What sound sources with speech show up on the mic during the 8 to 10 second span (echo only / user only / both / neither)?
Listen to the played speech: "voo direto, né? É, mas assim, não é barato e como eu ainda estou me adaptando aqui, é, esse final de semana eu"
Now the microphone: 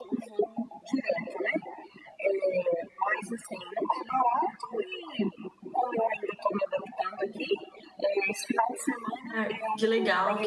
both